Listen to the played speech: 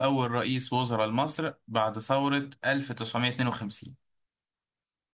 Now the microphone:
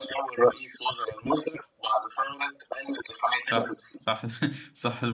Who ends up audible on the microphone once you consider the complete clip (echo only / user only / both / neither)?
both